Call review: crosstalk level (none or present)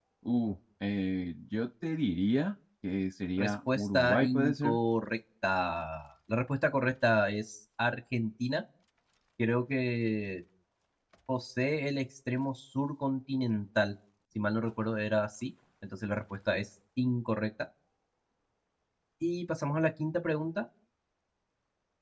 present